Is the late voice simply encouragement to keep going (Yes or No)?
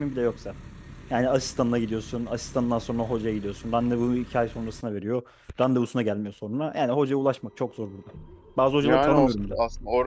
No